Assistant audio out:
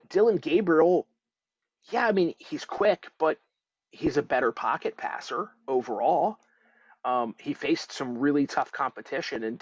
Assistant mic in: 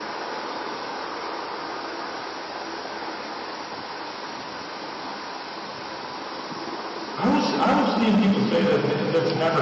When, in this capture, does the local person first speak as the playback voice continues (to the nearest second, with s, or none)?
7 s